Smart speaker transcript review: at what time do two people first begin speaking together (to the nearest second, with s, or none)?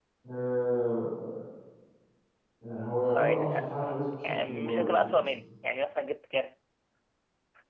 3 s